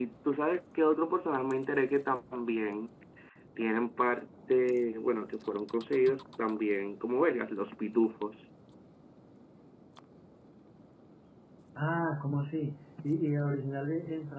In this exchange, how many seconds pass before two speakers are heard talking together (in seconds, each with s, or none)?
none